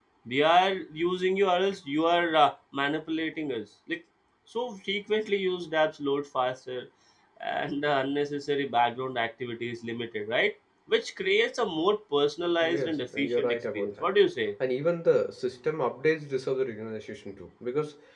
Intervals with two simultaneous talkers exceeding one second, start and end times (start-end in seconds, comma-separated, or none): 12.6-14.1